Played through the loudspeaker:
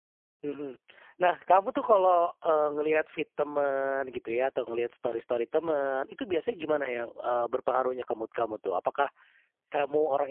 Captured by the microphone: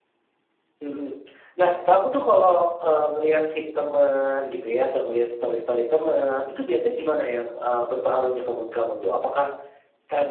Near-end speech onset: none

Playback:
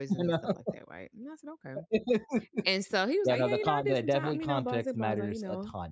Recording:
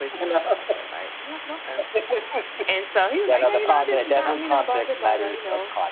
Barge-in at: none

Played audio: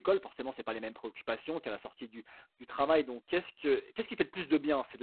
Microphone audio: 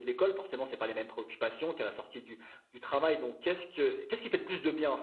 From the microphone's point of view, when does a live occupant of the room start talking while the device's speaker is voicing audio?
none

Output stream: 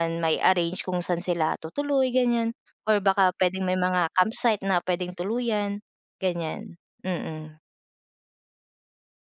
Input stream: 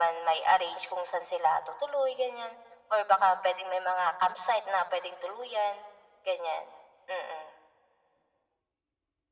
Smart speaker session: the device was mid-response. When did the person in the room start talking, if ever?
none

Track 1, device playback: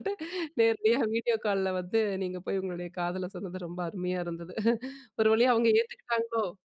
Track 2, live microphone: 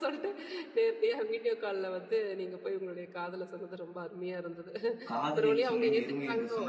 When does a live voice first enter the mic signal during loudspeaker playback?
5.1 s

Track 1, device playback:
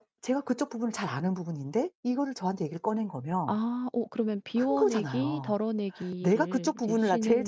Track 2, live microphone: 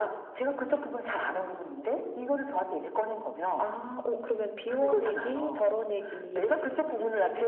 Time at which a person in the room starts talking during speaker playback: none

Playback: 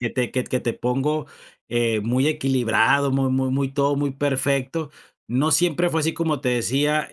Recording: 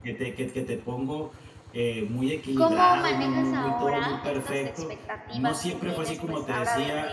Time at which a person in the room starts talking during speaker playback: 2.5 s

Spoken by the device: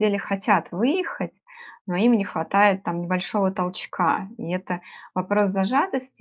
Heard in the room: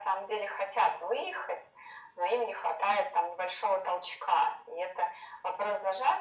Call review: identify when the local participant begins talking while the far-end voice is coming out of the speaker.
none

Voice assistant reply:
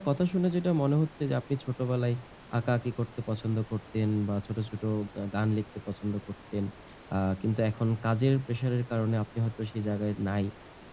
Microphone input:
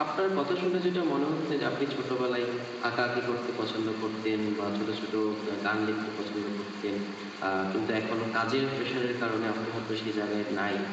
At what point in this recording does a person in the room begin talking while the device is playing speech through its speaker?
none

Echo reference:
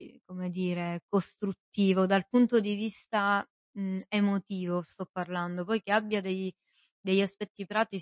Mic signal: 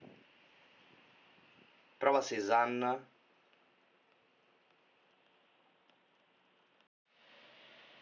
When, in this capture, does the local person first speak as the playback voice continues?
2.0 s

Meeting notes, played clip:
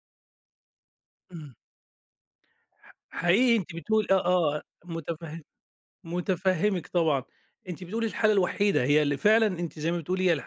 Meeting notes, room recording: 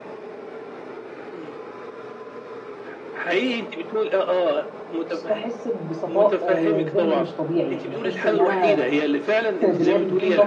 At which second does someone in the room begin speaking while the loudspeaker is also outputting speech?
5.0 s

